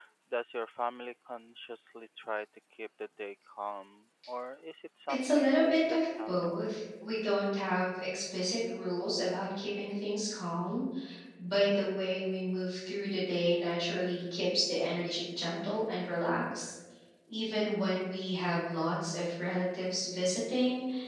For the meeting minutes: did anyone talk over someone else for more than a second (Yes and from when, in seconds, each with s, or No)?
Yes, from 5.1 s